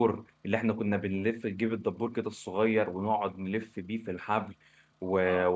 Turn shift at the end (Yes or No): No